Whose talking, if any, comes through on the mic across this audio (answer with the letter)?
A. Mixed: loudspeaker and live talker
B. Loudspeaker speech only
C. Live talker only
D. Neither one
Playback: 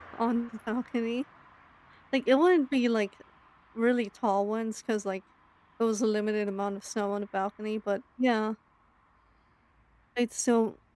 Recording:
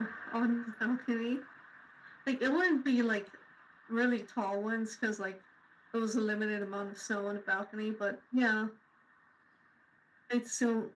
B